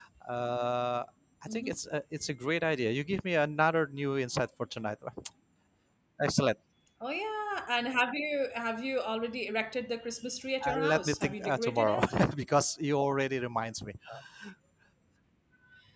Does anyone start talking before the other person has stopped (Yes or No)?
Yes